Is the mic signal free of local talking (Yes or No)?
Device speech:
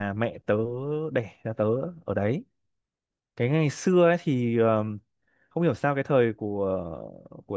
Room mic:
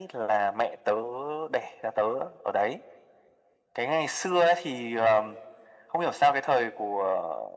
Yes